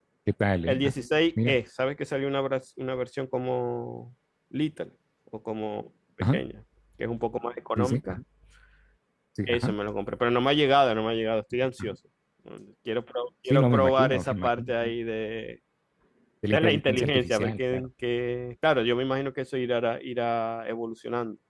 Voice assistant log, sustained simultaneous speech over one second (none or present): present